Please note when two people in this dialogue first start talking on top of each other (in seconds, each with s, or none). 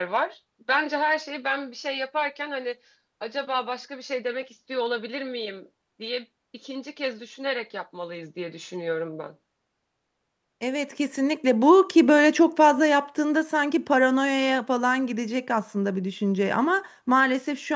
none